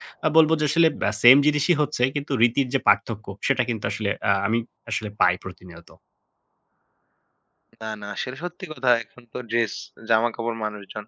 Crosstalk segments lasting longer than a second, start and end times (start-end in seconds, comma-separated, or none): none